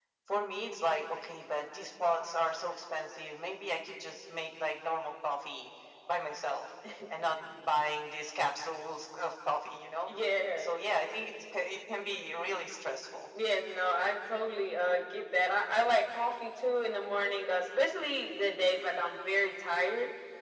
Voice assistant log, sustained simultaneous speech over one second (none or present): none